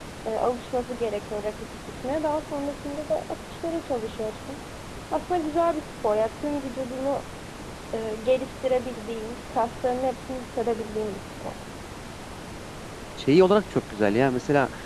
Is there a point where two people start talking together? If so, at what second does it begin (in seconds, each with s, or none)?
none